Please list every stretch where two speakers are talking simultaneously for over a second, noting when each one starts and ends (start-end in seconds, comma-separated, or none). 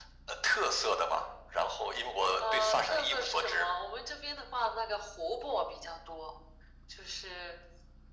2.4-3.7